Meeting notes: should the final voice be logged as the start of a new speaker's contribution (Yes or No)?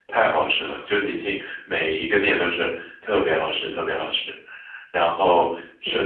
No